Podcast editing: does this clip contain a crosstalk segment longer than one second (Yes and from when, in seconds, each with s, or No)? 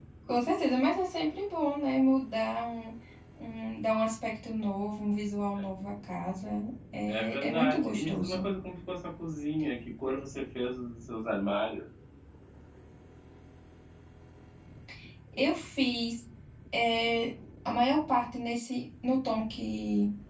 Yes, from 7.1 s